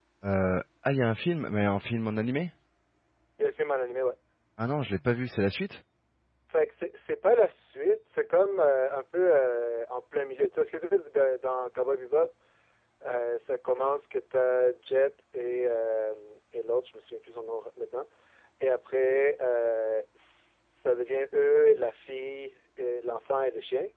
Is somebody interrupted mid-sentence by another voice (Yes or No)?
No